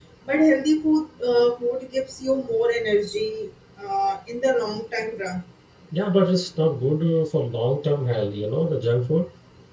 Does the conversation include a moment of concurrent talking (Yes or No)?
No